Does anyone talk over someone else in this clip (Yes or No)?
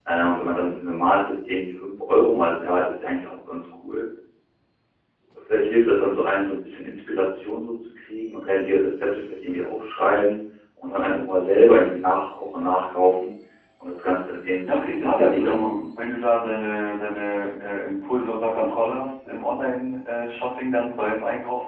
Yes